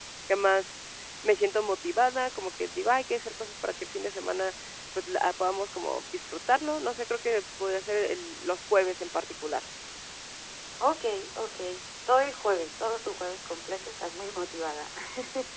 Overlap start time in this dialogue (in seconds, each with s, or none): none